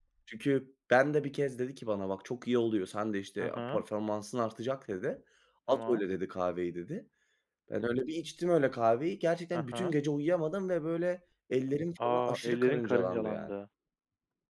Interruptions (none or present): present